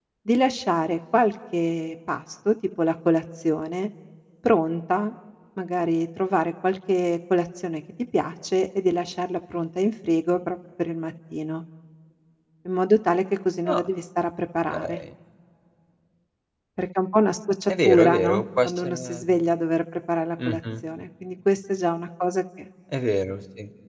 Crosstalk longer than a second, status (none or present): present